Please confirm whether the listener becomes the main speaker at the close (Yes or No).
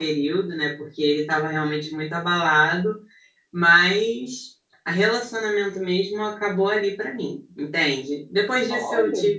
No